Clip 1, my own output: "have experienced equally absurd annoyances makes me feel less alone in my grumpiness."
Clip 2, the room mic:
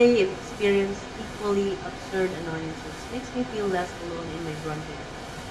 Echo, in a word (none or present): present